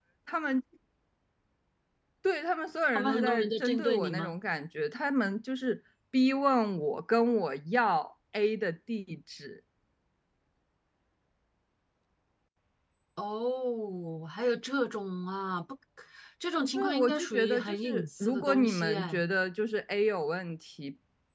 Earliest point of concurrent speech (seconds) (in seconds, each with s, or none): 2.9 s